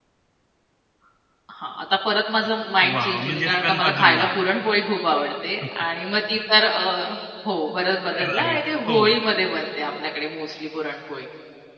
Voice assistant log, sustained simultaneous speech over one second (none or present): present